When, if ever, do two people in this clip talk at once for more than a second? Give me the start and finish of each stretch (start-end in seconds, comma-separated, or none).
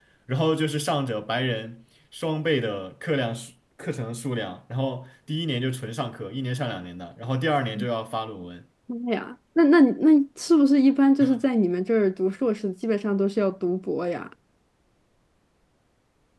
none